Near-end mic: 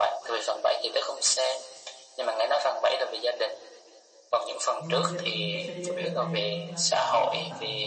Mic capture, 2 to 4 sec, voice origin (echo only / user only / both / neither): echo only